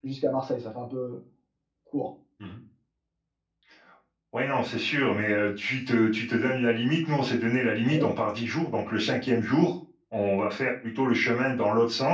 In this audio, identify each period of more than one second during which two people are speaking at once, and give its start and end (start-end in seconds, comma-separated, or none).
none